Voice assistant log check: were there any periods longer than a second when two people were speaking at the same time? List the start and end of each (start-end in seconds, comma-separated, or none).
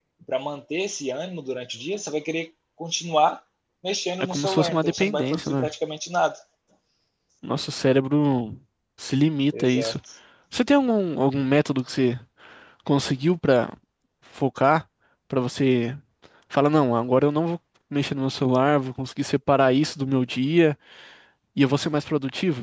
4.2-5.7